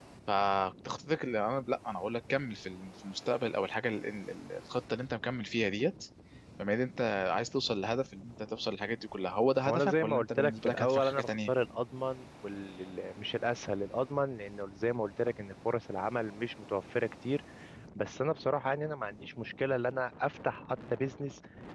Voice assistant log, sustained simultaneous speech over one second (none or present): present